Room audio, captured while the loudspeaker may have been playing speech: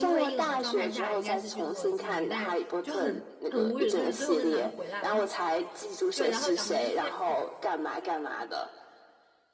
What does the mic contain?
both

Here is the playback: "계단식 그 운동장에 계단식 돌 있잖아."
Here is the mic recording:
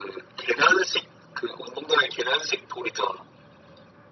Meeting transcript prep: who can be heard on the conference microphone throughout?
echo only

